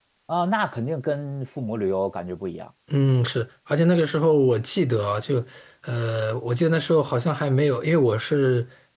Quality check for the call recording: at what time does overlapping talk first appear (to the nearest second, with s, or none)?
none